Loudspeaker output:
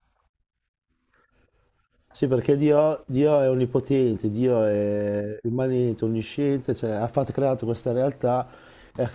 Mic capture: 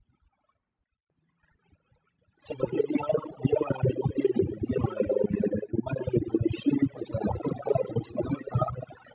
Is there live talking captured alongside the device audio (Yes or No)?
No